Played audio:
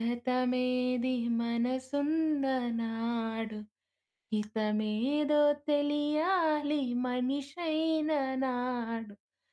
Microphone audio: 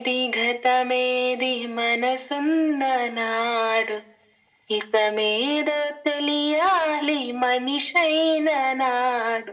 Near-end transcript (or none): none